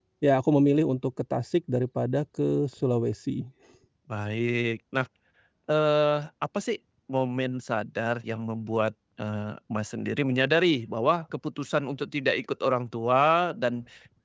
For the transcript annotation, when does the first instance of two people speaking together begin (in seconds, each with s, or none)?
none